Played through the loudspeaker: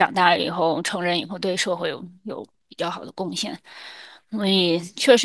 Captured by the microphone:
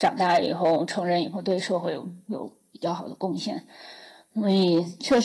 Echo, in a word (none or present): present